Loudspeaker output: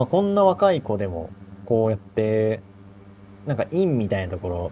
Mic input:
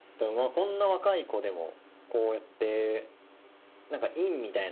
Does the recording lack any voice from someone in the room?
Yes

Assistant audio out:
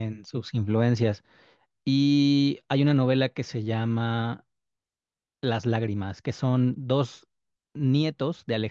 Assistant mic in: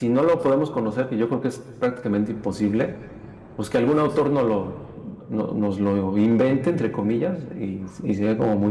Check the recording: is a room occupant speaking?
Yes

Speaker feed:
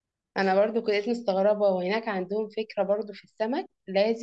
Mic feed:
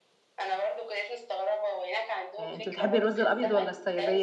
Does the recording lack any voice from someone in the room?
No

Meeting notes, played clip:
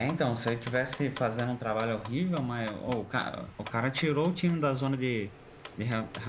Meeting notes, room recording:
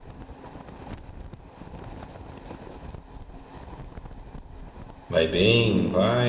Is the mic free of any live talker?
No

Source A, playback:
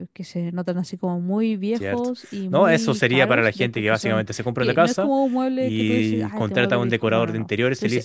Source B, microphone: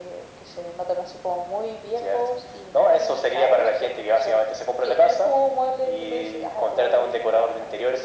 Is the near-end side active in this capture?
No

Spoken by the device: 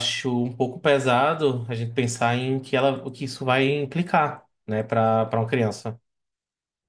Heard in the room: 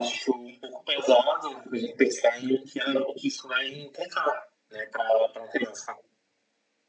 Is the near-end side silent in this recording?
Yes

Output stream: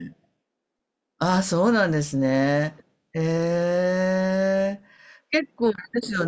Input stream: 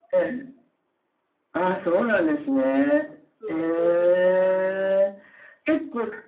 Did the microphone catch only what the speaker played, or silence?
No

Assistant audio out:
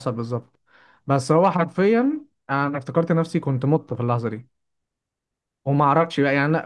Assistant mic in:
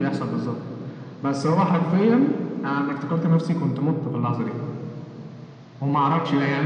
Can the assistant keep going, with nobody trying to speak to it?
Yes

